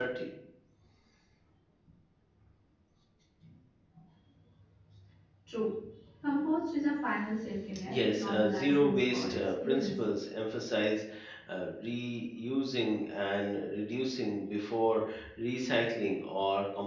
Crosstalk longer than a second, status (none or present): present